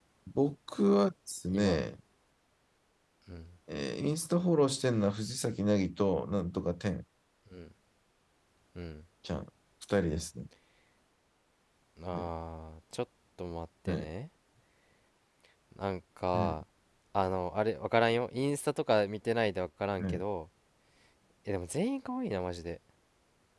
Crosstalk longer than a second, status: none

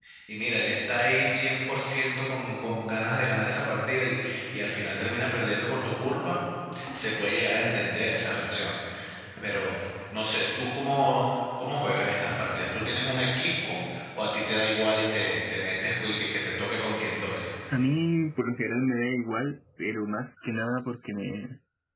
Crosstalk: none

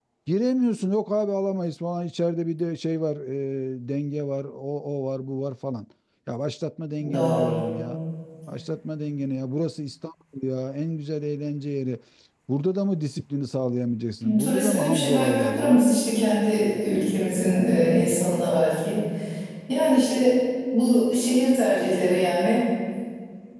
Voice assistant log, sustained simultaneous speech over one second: present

